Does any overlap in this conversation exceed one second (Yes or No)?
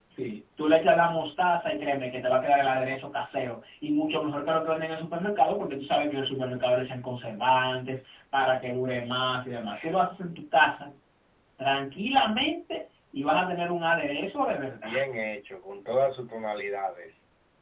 No